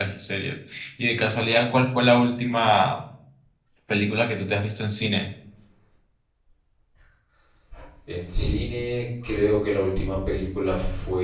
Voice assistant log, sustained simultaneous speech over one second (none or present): none